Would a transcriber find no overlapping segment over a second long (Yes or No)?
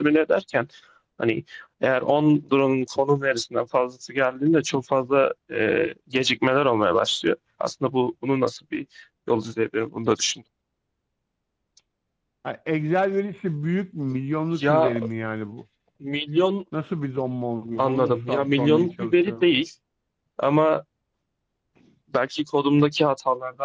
No